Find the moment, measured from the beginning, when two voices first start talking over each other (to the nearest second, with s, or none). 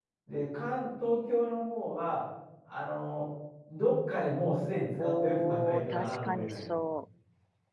5 s